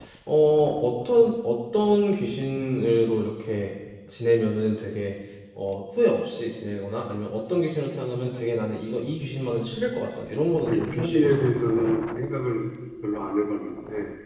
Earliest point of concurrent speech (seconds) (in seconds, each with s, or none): 10.7 s